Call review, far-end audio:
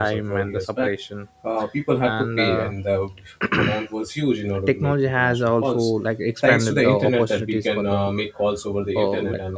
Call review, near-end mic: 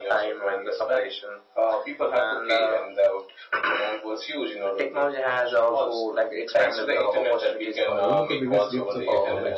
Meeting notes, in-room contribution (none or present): present